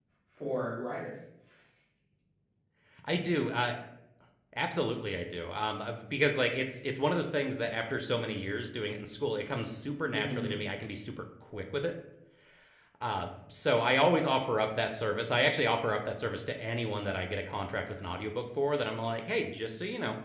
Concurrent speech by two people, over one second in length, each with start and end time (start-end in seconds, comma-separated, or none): none